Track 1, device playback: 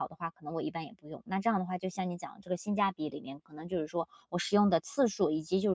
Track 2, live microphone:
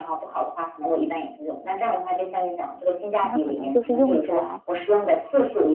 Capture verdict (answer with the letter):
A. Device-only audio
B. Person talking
B